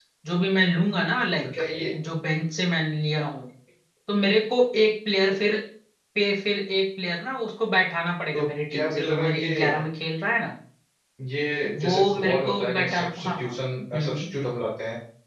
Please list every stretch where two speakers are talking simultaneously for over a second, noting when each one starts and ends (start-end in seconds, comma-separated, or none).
8.3-9.8, 11.8-13.5